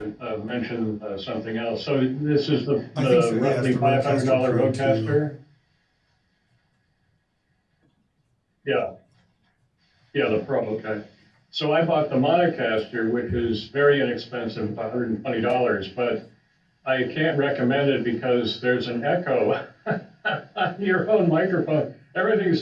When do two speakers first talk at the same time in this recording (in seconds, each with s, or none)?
3.0 s